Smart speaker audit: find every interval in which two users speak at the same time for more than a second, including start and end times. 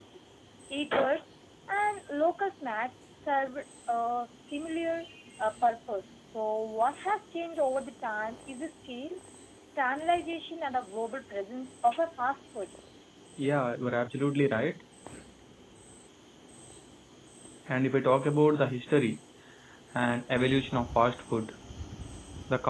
none

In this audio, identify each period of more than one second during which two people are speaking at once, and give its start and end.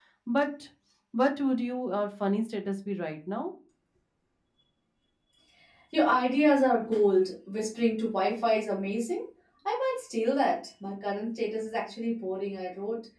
none

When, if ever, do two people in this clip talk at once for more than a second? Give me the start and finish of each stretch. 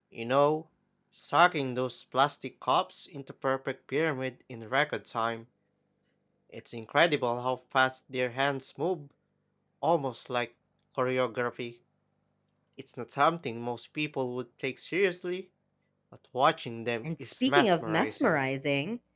17.0-18.4

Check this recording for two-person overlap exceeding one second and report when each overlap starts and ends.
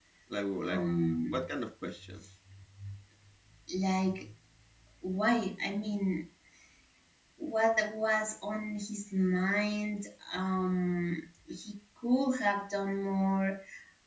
none

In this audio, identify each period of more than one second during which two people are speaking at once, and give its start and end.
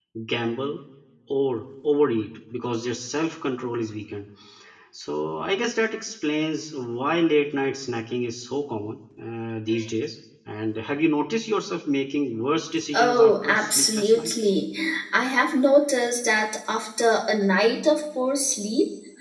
12.9-14.3

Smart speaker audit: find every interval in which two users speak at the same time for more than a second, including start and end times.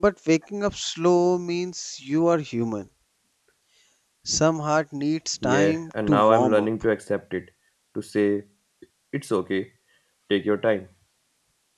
5.4-6.7

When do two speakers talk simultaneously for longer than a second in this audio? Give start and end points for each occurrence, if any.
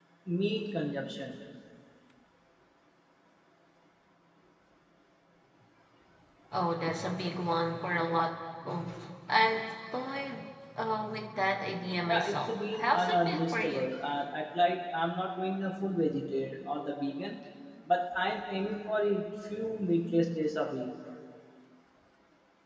12.1-13.8

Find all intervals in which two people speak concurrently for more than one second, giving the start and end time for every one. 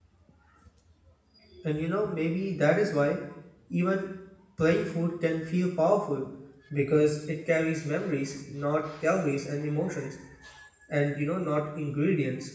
none

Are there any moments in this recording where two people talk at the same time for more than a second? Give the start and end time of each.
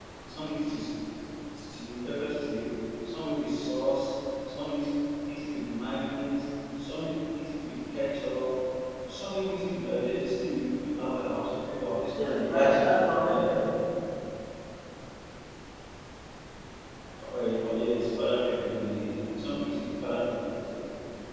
12.2-13.5

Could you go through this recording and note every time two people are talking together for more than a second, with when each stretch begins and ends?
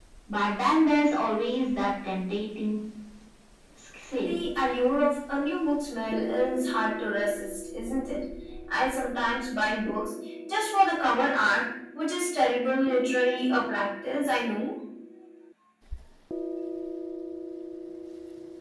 none

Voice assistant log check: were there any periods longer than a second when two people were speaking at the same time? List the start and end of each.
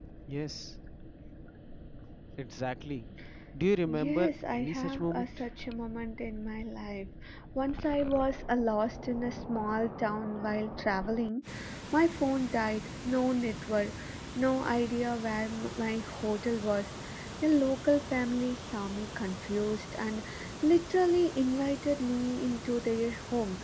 3.9-5.4

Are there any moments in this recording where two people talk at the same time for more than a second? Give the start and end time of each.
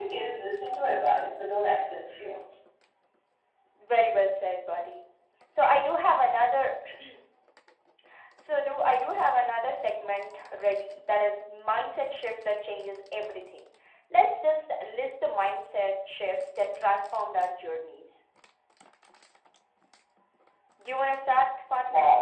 none

